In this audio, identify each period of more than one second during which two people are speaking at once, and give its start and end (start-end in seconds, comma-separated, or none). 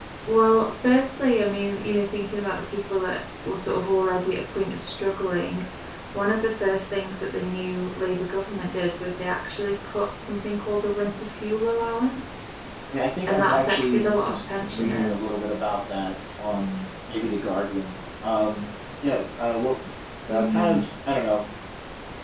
13.3-15.3